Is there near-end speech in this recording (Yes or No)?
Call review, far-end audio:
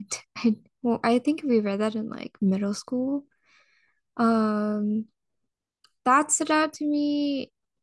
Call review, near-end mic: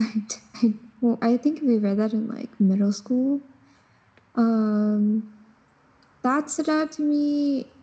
No